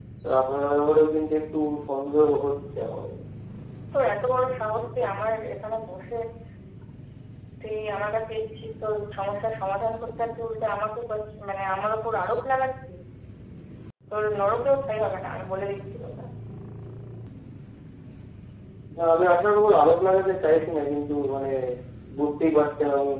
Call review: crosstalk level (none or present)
none